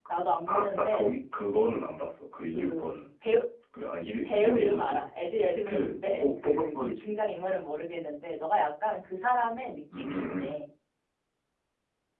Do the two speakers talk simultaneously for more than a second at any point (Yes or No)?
Yes